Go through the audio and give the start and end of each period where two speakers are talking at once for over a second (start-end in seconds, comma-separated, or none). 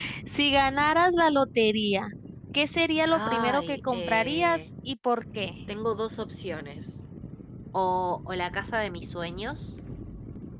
3.1-4.6